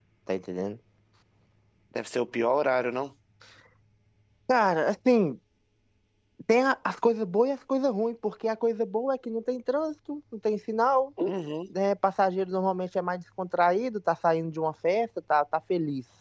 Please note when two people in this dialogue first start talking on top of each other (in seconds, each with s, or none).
none